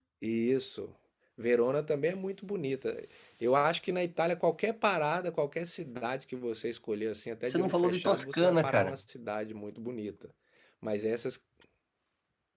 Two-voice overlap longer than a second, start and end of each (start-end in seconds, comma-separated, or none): 7.5-9.0